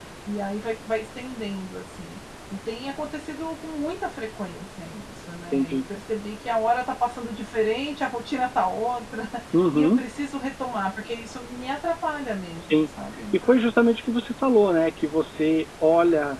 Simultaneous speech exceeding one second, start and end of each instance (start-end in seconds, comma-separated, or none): none